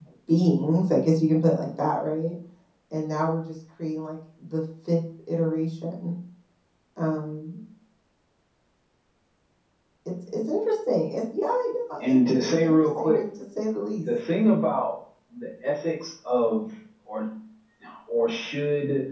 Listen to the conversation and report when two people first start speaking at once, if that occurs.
12 s

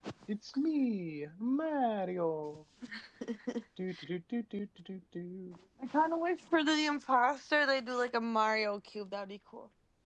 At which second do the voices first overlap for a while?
none

